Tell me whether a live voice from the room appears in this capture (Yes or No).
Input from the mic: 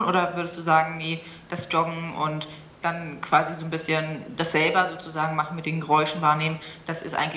No